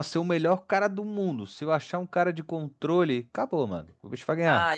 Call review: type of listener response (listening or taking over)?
taking over